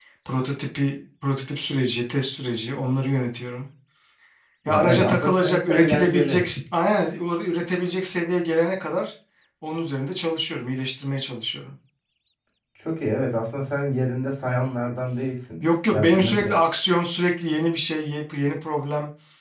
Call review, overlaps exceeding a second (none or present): present